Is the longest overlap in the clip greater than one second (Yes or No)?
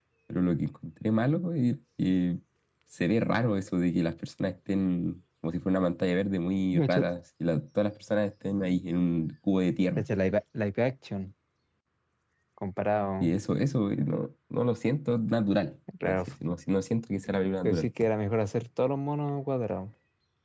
No